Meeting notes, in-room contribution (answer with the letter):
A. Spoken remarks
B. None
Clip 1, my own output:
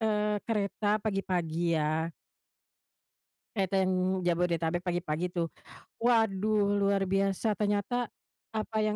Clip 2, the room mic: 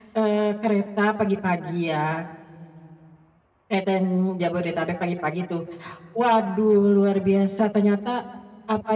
B